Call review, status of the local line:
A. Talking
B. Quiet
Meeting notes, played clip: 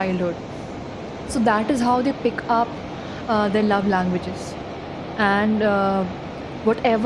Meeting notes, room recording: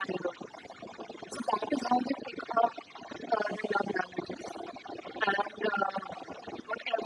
B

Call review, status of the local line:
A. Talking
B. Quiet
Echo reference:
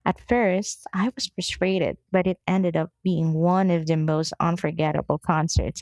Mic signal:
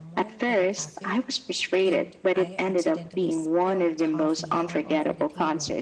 A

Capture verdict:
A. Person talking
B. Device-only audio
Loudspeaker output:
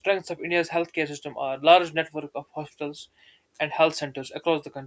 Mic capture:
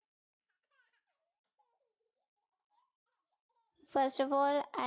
A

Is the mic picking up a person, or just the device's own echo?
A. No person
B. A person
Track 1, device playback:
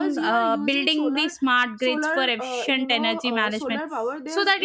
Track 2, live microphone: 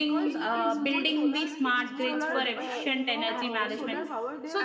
B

